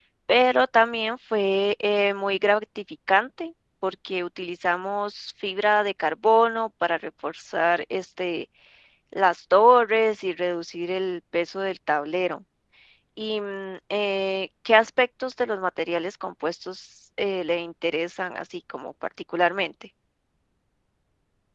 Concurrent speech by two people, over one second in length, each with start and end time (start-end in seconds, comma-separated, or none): none